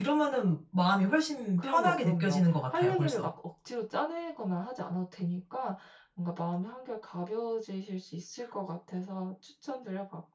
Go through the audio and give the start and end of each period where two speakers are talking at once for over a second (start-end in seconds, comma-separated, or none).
1.6-3.3